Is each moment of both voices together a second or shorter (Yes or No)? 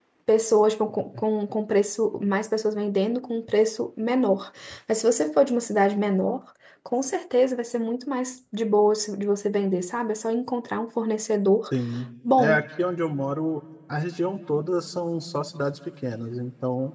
Yes